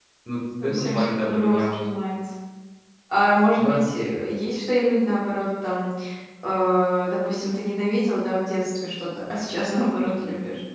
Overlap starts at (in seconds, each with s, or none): 0.6 s